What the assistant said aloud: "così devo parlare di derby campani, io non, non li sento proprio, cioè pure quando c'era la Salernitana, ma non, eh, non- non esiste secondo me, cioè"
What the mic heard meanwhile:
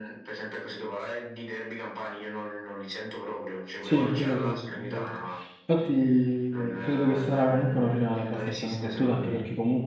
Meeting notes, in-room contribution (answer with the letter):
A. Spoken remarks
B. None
A